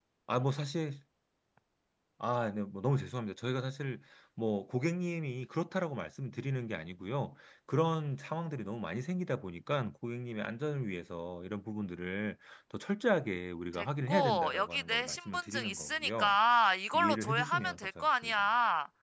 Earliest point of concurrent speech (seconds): 13.7 s

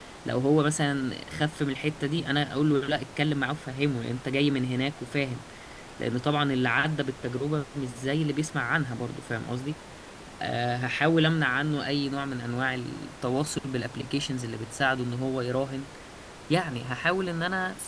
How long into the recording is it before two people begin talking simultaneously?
none

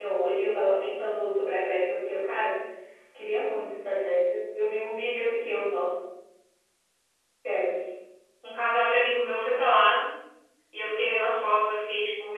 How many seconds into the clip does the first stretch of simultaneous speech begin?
none

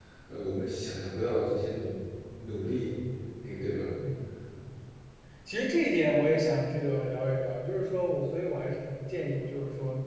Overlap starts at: none

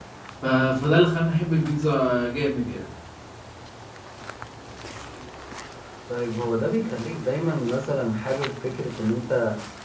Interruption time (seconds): none

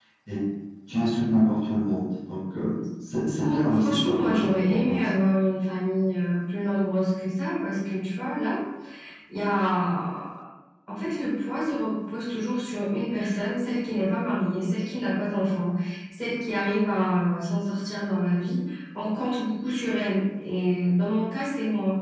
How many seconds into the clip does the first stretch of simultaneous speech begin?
3.4 s

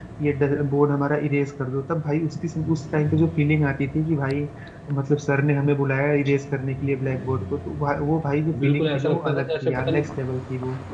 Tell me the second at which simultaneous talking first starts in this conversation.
8.5 s

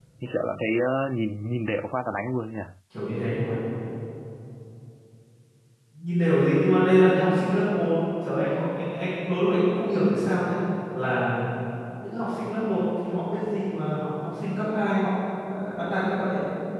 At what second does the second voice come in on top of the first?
none

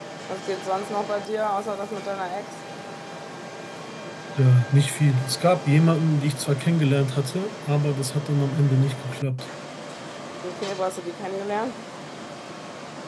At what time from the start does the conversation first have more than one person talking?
none

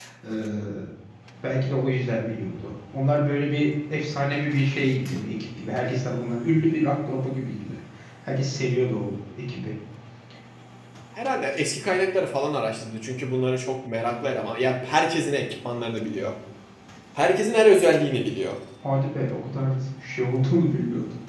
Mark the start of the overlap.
none

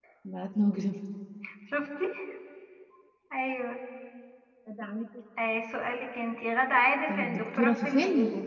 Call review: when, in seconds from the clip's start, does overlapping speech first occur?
7.1 s

